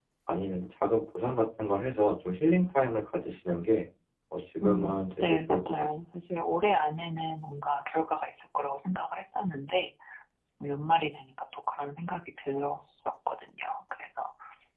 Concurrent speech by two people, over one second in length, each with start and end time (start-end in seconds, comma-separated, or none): 4.6-5.9